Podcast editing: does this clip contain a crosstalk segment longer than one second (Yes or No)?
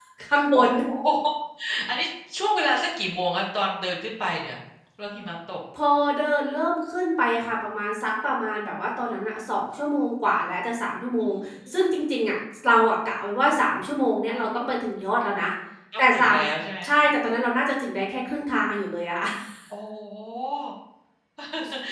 No